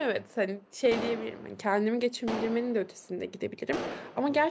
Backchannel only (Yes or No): Yes